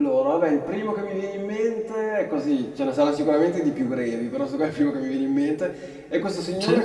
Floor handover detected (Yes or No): No